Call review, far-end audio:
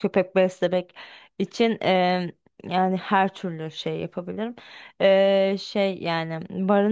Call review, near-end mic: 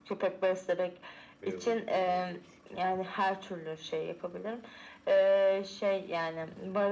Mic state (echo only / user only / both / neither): both